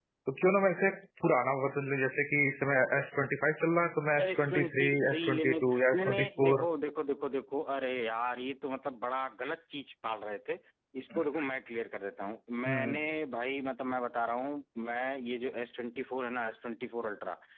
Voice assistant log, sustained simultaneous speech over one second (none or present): present